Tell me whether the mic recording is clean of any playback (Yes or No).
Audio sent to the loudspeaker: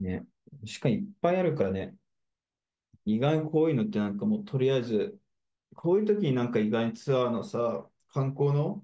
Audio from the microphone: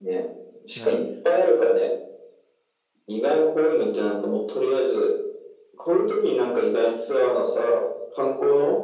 No